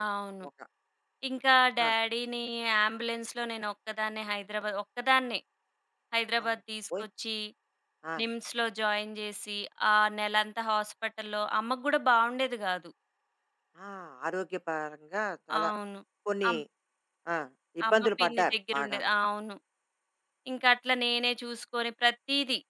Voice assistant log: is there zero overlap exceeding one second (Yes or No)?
No